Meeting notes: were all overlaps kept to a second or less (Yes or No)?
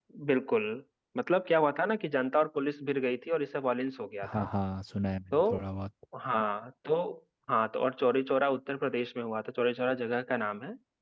Yes